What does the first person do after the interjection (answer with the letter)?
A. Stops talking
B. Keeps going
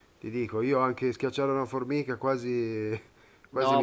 A